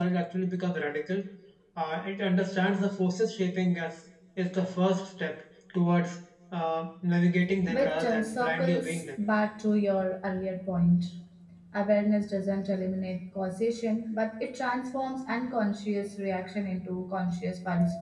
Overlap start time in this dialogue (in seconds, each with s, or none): 7.6 s